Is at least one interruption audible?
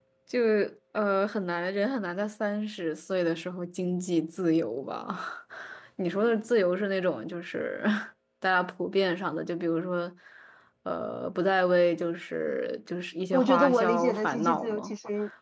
Yes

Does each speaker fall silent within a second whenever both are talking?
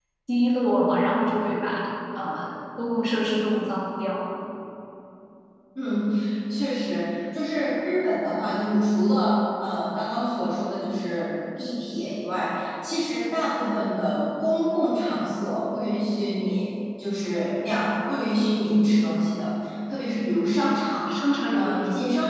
Yes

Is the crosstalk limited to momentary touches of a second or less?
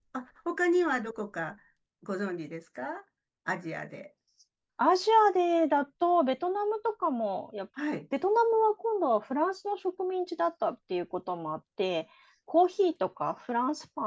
Yes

